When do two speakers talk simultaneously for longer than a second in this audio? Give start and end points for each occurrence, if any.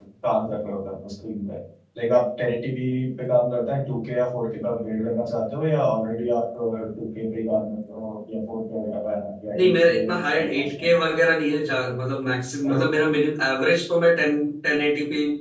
9.6-10.9

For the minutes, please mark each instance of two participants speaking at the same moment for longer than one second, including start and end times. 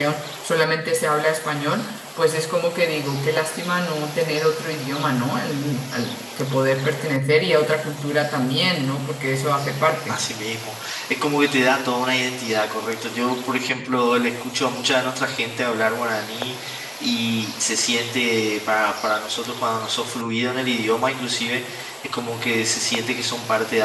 none

